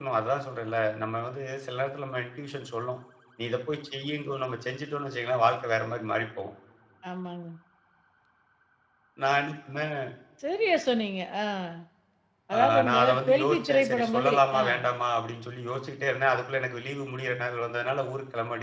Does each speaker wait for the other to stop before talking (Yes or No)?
No